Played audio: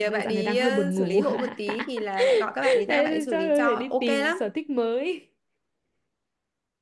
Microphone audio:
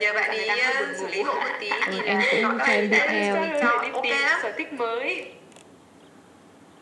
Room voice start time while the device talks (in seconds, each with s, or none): 1.8 s